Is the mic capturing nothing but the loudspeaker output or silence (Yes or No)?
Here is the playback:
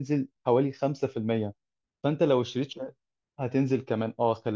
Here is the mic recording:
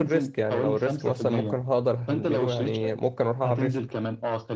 No